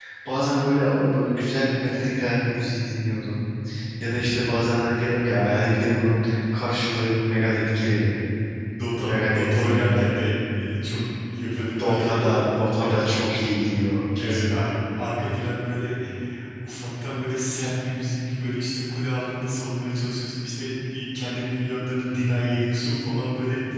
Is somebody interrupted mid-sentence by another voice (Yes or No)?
Yes